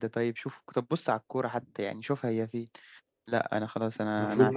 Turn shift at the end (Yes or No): Yes